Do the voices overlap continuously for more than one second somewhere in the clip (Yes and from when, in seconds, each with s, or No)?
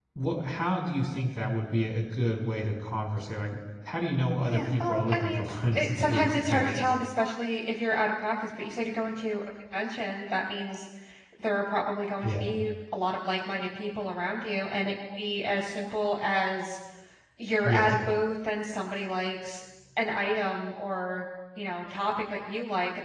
Yes, from 4.4 s